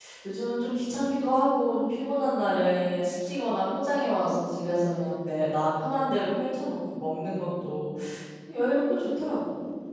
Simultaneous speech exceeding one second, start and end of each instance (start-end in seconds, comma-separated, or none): none